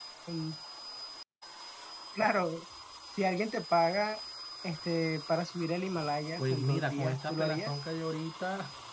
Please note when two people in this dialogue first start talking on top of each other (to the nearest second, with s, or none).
6 s